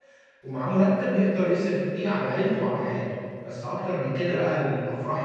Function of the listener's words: listening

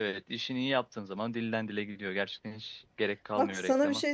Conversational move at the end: taking over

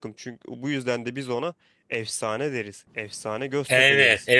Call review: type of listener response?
taking over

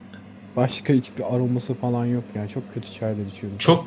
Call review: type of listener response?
taking over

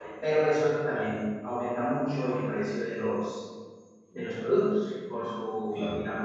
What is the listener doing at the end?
listening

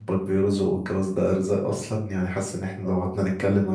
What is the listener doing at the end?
listening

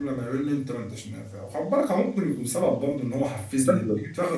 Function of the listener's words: taking over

